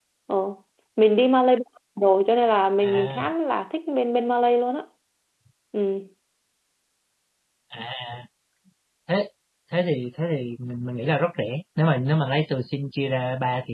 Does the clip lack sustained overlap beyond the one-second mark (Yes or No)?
Yes